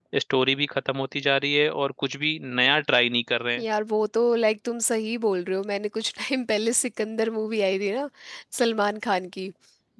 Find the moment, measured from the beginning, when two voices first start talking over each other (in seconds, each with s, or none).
none